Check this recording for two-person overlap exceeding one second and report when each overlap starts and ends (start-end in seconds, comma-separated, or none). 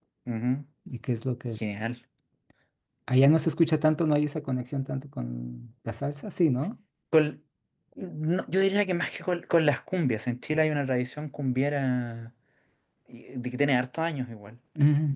none